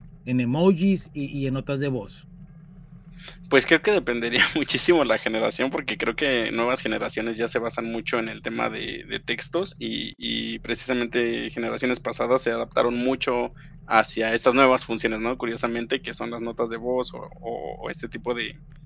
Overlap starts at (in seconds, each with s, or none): none